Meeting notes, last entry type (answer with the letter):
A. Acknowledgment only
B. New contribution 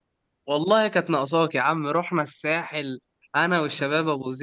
A